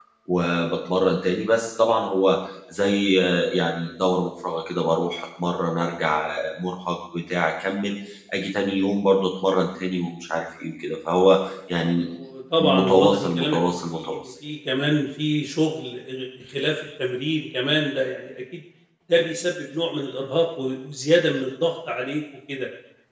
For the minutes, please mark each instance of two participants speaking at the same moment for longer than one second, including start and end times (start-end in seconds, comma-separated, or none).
12.6-14.3